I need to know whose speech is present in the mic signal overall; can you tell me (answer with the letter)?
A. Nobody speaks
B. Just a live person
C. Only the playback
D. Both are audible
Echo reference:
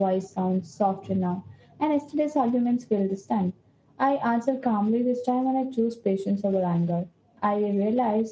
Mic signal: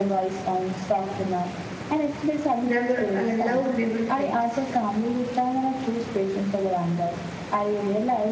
D